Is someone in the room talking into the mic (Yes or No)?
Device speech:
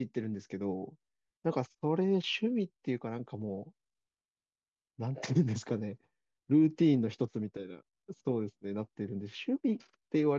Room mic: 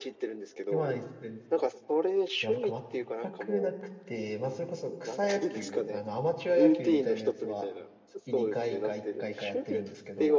Yes